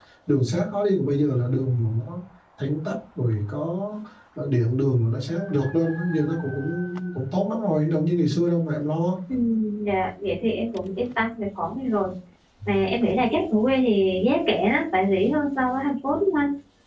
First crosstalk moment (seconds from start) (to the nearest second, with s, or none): none